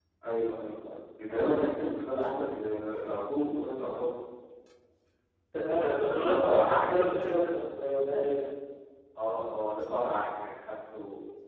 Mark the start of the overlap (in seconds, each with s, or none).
6.1 s